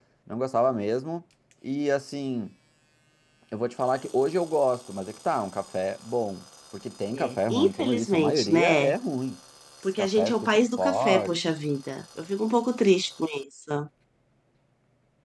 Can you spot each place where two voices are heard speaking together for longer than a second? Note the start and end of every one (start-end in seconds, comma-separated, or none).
7.1-8.9, 10.0-11.4